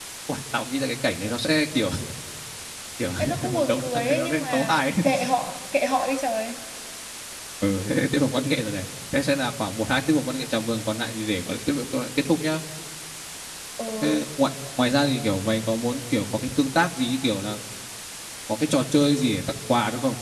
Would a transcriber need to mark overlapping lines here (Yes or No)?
Yes